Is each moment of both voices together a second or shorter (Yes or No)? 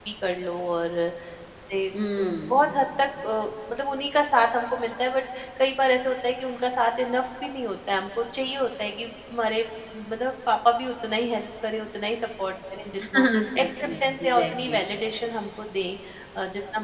No